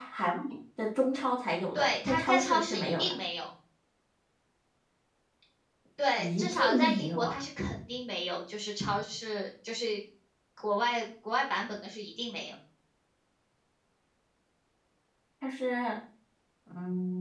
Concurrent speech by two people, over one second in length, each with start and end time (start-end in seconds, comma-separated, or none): 1.7-3.1, 6.2-7.4